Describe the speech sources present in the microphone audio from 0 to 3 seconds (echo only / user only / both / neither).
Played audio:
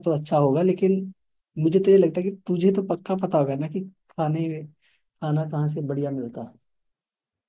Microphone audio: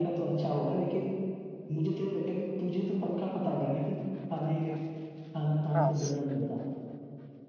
echo only